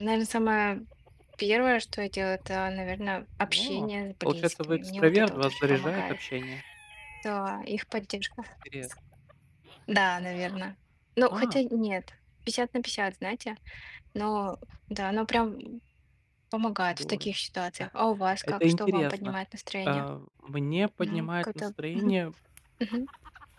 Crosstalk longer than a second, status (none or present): present